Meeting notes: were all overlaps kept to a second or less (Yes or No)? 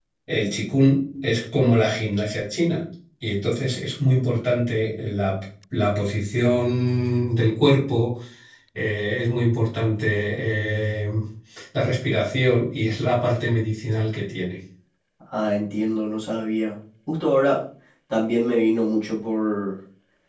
Yes